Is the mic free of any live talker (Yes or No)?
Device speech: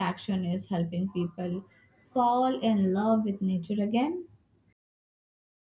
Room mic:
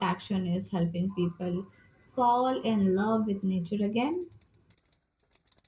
Yes